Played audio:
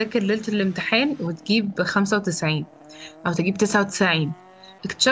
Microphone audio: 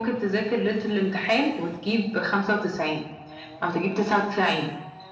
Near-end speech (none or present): none